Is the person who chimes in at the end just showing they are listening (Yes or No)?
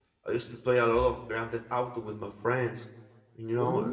Yes